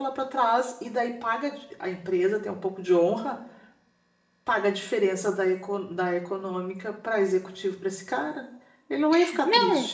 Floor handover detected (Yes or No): Yes